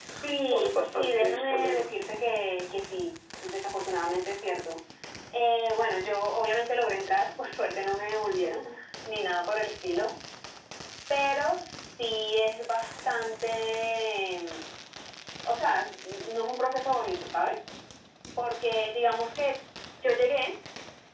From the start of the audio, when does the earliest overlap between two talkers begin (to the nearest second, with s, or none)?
1 s